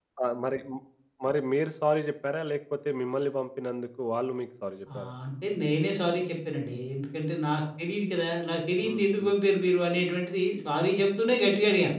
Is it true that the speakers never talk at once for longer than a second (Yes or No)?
Yes